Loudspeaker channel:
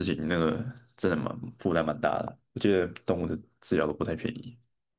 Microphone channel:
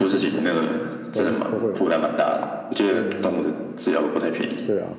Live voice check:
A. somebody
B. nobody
A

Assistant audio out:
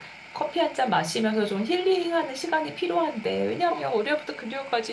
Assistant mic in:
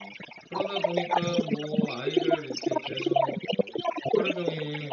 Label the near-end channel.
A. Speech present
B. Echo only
A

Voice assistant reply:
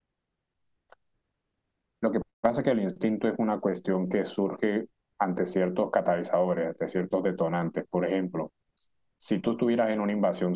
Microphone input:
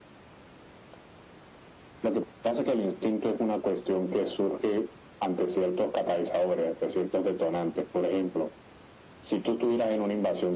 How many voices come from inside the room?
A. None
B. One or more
A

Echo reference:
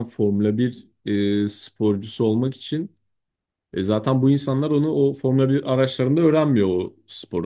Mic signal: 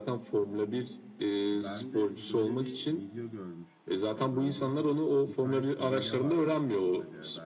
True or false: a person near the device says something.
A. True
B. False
A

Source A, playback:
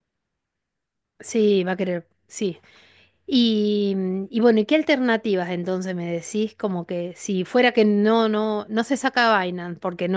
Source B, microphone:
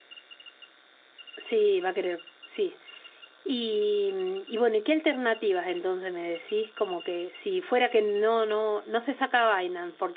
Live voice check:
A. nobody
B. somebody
A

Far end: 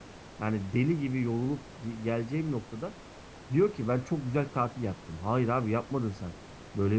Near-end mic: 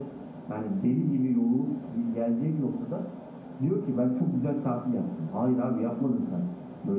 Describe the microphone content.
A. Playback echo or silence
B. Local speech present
A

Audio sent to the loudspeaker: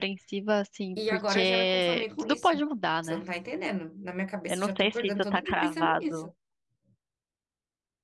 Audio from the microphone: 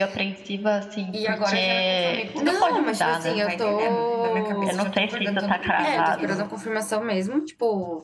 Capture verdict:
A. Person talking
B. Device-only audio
A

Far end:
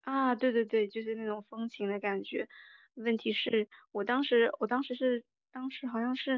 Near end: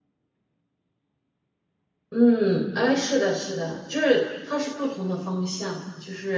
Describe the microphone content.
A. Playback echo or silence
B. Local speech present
B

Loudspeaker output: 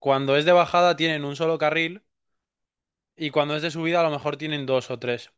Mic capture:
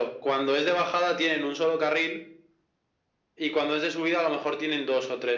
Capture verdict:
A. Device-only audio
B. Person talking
A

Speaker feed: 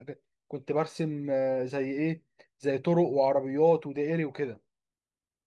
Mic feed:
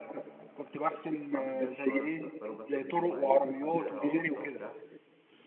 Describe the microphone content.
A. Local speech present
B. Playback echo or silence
A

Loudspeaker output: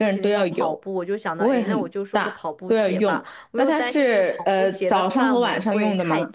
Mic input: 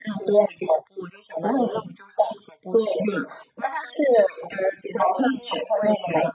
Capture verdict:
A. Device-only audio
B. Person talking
A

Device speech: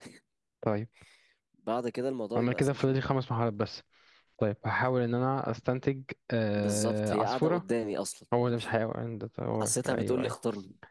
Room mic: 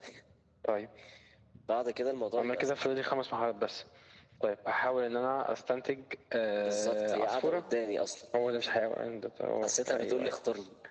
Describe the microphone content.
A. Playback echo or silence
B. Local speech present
A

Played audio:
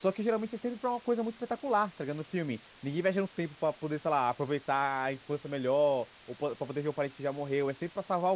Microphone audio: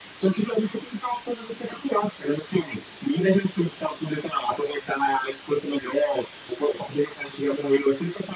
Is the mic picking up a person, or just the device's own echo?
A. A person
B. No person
B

